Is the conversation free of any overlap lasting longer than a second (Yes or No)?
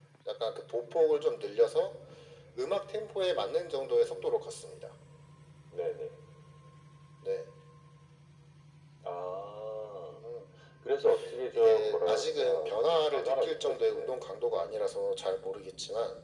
No